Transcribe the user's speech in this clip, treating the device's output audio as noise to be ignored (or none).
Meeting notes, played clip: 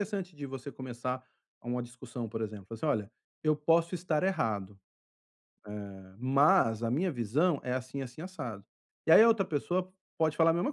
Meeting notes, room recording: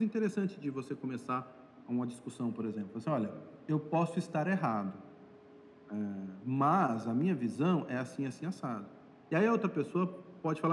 none